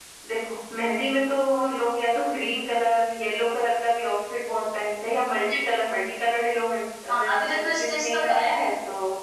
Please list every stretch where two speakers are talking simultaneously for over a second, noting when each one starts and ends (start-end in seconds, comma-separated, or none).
7.1-8.5